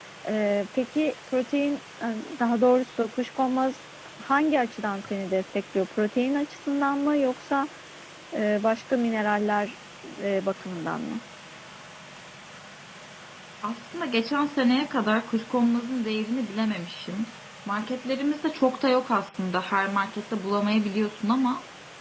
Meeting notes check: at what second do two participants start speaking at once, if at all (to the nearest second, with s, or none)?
none